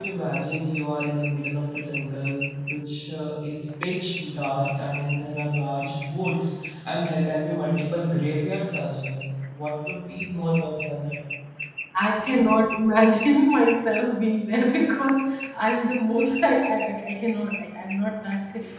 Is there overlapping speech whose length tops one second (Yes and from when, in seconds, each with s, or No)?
No